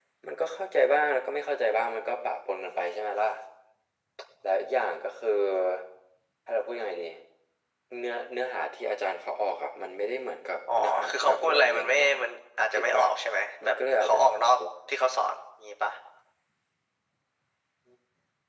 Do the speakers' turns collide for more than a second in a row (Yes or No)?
Yes